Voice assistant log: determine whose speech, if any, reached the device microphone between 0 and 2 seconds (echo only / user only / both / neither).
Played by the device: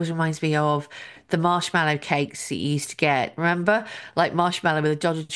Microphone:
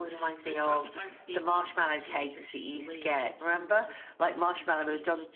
both